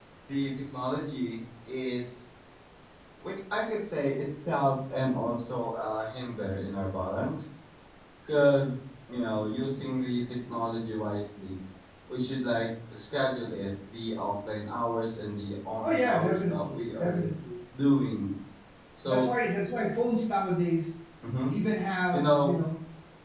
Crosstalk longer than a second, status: present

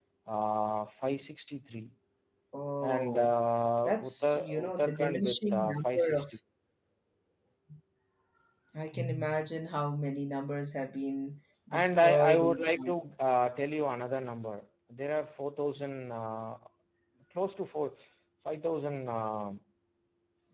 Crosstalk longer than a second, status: present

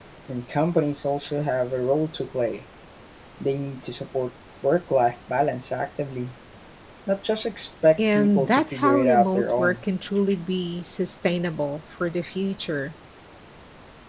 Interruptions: present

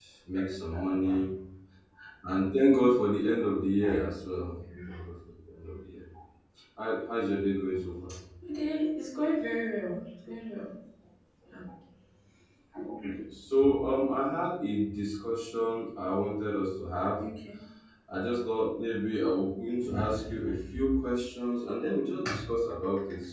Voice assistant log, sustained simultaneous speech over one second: none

